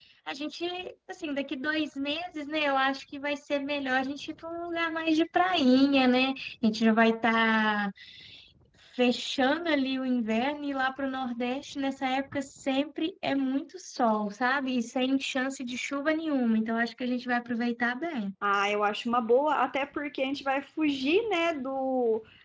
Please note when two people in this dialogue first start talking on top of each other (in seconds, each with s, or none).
none